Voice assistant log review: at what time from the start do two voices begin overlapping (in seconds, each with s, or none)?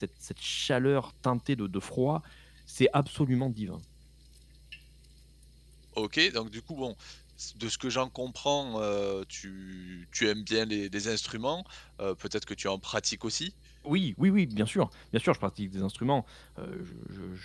none